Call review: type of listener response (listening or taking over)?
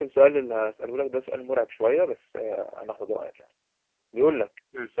listening